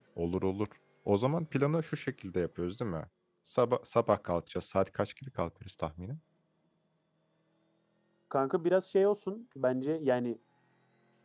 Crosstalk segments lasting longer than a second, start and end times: none

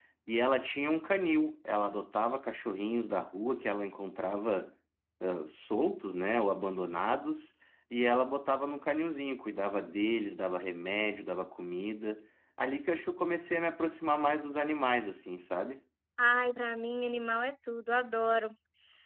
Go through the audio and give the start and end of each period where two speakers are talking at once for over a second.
none

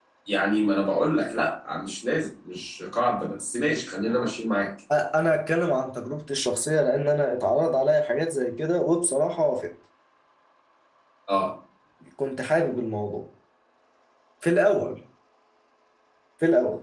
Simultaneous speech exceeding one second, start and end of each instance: none

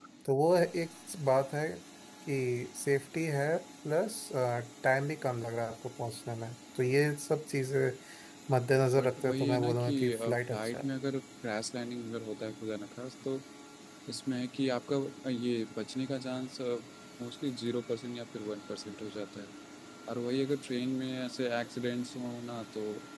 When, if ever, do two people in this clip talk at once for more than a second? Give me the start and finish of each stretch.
9.0-10.9

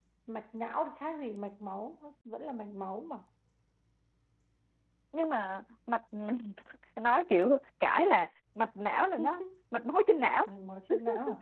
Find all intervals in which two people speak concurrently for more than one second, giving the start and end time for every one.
none

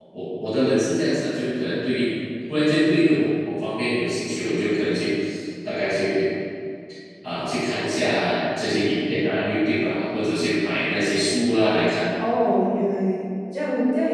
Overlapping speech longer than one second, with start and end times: none

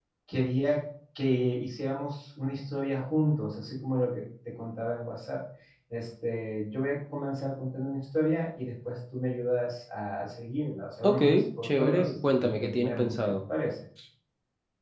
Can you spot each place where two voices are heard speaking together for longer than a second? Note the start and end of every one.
11.6-13.1

